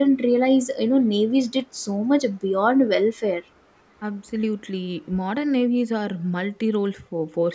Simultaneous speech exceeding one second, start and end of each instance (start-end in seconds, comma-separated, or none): none